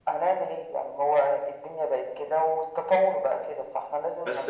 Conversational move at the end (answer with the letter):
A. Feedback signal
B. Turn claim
B